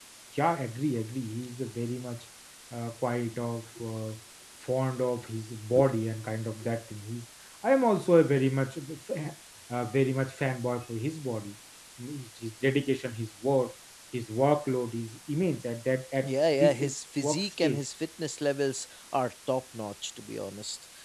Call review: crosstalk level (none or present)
present